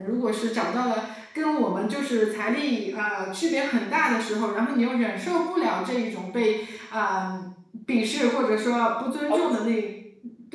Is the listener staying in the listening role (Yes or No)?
Yes